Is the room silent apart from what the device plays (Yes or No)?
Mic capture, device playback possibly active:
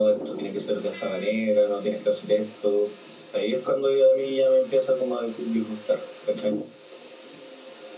Yes